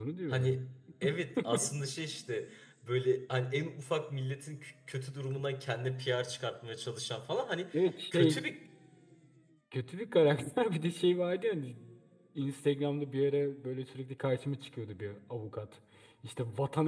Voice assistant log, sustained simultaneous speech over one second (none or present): none